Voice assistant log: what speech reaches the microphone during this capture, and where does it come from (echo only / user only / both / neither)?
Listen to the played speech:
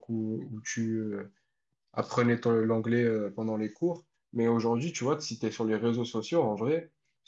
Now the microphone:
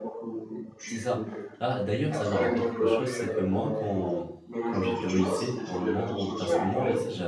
both